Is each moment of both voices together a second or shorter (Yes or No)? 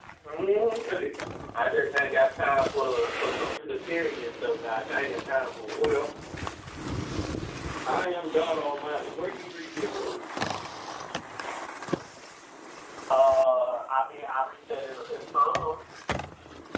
Yes